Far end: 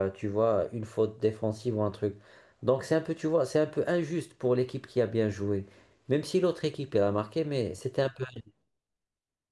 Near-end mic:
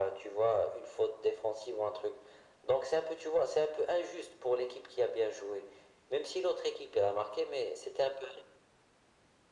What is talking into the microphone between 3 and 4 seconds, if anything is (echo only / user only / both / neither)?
echo only